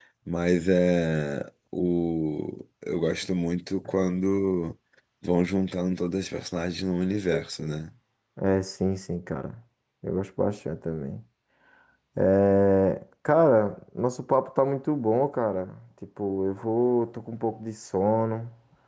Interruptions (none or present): none